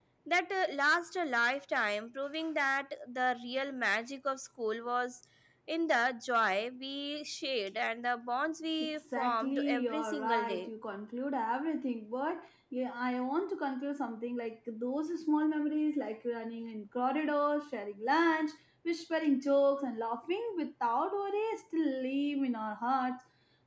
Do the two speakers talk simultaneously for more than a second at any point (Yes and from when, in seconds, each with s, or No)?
Yes, from 8.8 s